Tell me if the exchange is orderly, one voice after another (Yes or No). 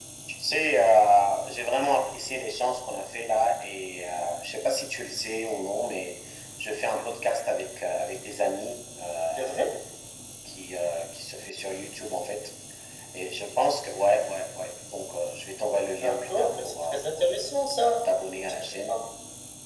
No